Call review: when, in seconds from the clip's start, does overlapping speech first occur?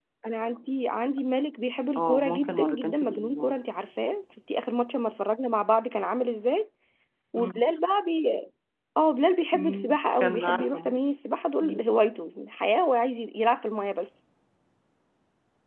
2.0 s

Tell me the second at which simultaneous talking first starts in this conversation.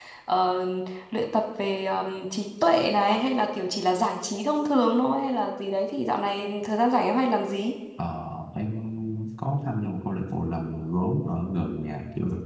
none

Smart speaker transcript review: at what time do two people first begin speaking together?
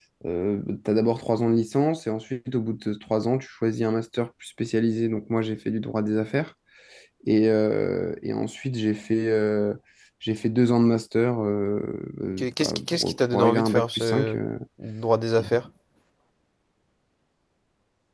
12.4 s

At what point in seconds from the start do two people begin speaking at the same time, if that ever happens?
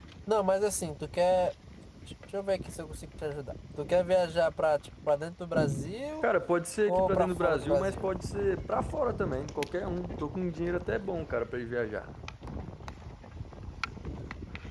6.9 s

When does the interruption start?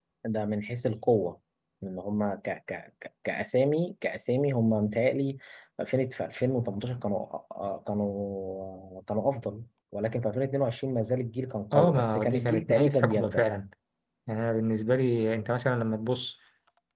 11.7 s

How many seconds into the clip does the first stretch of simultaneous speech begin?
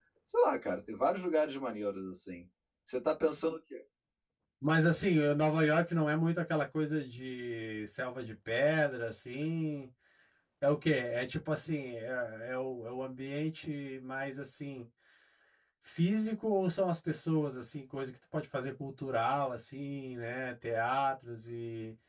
none

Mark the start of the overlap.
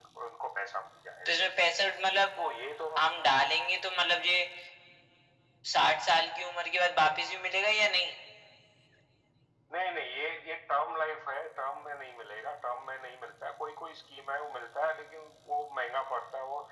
none

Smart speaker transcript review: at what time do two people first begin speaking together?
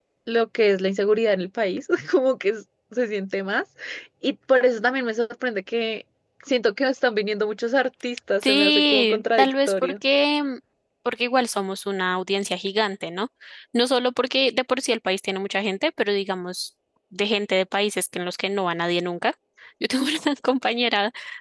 8.4 s

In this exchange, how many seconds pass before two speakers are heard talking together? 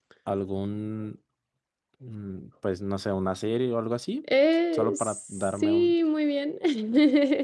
4.7 s

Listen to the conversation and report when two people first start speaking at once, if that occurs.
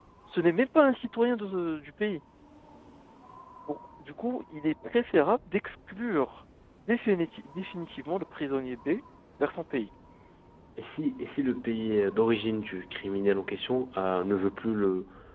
none

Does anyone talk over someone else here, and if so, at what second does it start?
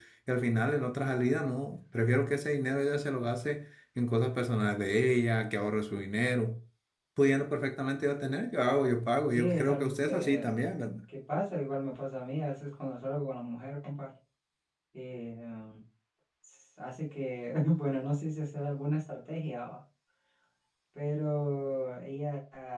9.3 s

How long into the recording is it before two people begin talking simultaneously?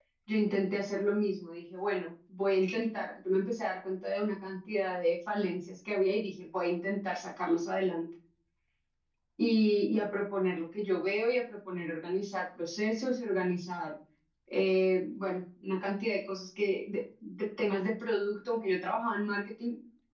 none

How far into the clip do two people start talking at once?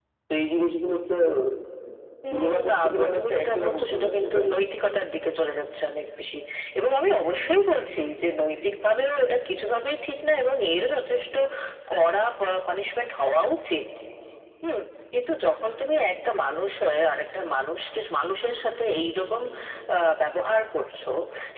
2.3 s

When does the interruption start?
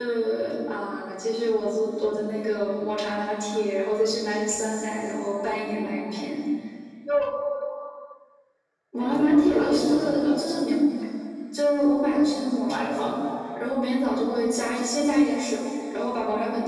9.0 s

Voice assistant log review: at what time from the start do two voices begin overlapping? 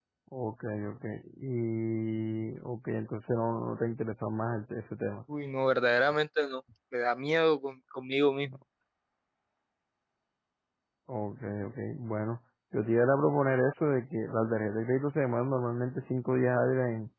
none

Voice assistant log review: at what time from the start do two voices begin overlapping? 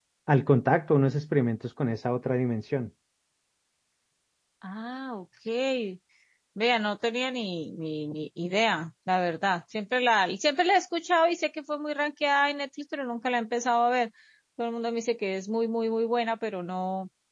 none

